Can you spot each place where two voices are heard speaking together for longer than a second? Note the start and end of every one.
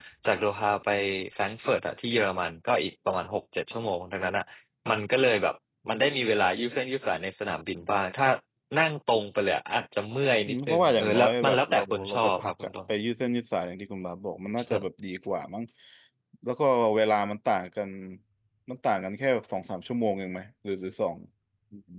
10.5-12.7

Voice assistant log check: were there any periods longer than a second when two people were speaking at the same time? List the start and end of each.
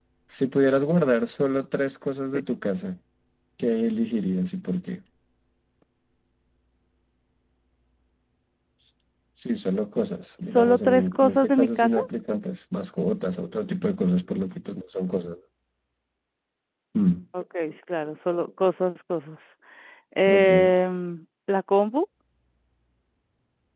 10.4-12.0

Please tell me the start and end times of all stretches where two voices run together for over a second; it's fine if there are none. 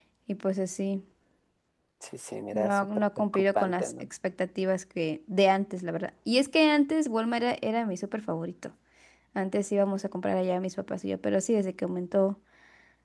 2.5-4.0

